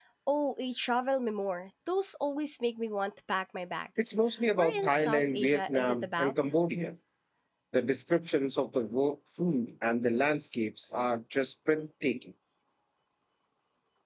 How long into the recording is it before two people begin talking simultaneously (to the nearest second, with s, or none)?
4 s